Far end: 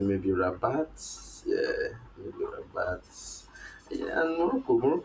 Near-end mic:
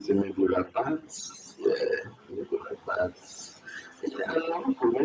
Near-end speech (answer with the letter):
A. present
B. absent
B